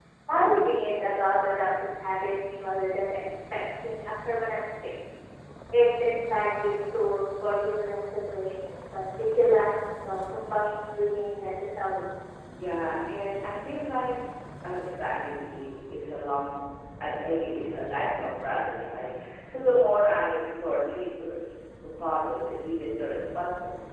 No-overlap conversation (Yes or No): Yes